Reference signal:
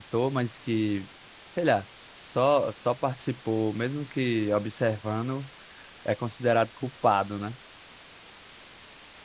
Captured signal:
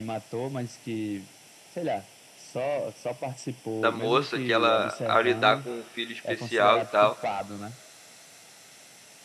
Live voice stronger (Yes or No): Yes